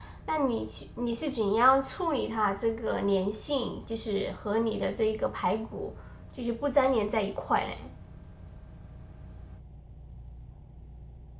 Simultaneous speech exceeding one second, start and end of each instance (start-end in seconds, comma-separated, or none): none